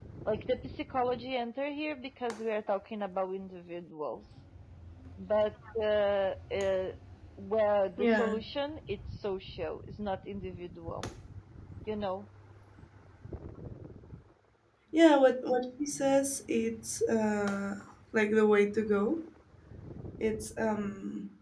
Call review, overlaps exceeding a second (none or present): none